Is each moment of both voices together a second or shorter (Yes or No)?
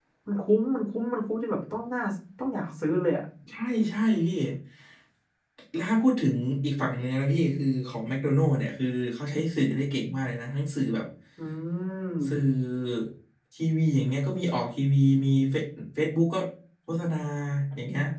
Yes